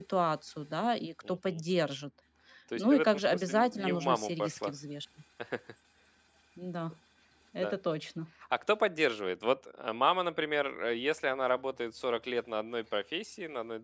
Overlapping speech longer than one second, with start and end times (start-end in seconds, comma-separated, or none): 2.8-4.7